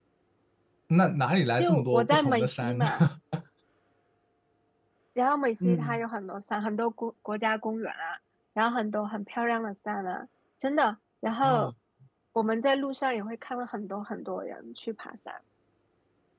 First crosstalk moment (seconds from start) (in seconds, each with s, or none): 1.6 s